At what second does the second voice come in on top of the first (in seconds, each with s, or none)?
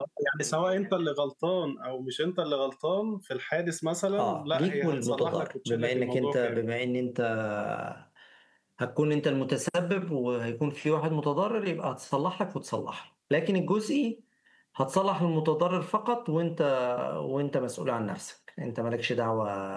4.1 s